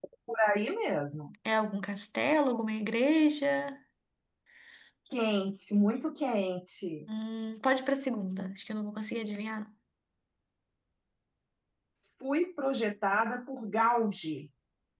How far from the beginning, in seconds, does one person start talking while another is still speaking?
none

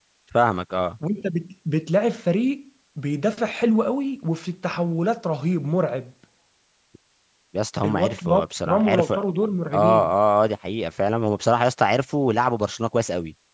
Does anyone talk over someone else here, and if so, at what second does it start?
7.8 s

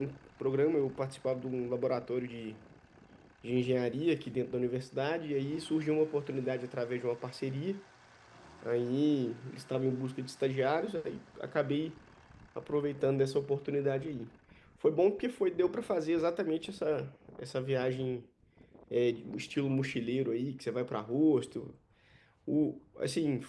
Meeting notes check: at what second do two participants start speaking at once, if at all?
none

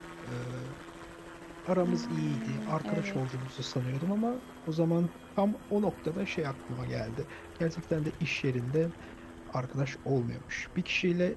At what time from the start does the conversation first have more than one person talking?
1.8 s

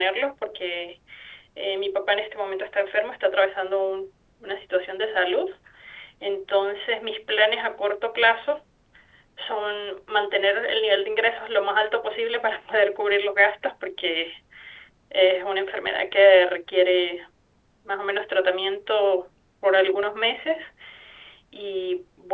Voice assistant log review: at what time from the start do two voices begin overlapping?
none

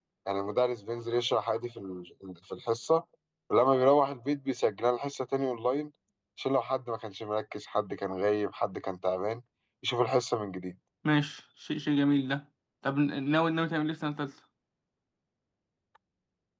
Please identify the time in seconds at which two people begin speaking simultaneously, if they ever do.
none

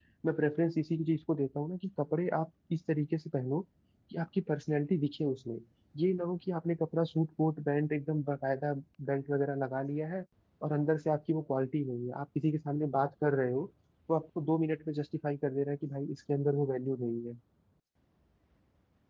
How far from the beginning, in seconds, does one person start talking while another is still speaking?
none

